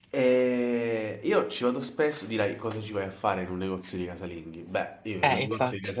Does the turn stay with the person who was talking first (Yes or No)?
Yes